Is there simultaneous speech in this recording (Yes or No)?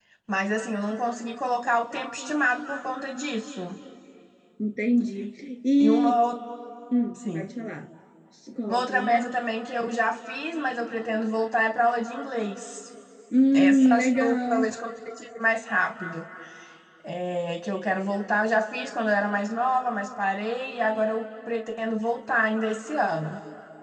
Yes